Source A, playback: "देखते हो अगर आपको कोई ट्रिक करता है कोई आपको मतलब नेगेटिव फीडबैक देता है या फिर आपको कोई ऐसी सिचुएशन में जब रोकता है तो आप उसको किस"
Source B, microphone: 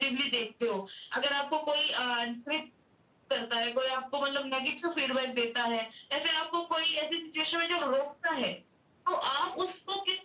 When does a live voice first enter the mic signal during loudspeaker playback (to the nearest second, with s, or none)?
none